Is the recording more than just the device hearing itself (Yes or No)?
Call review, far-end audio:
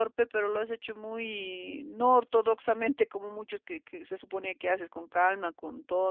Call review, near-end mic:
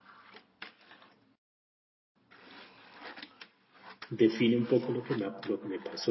Yes